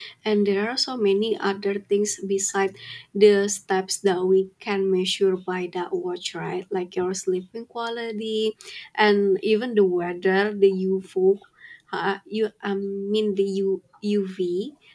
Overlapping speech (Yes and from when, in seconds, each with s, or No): No